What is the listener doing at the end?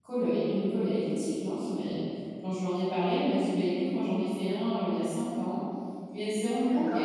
listening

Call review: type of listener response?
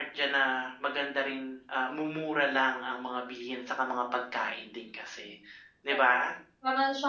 taking over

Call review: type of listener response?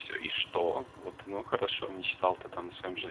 listening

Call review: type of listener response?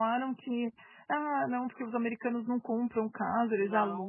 taking over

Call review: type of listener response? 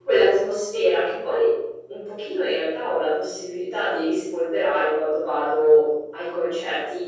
listening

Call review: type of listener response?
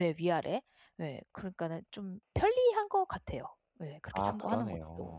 taking over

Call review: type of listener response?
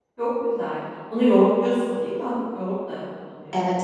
taking over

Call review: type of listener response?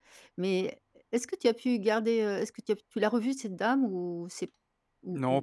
taking over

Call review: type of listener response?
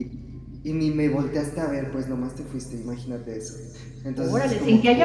taking over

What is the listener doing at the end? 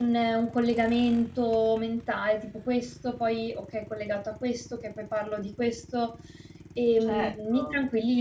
taking over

